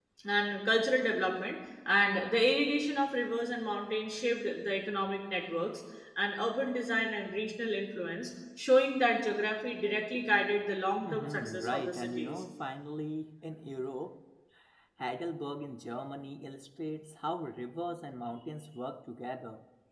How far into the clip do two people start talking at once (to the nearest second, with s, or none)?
11 s